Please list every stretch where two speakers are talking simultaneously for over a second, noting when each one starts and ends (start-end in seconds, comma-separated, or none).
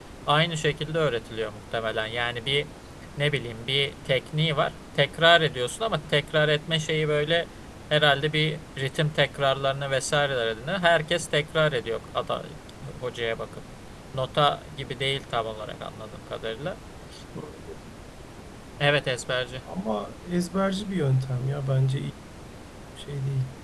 none